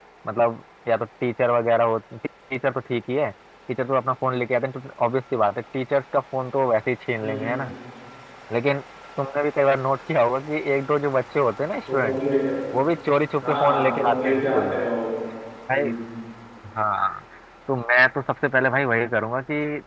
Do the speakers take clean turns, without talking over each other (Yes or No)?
No